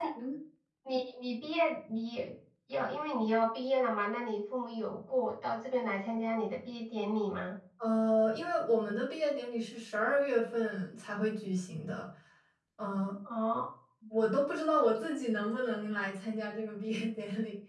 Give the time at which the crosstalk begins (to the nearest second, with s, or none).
none